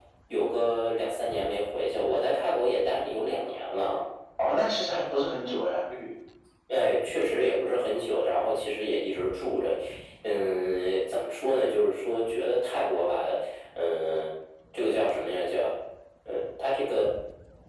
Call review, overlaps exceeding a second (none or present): none